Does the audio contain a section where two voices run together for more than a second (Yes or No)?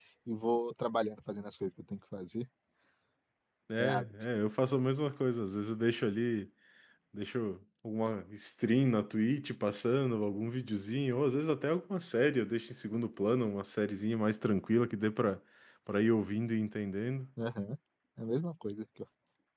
No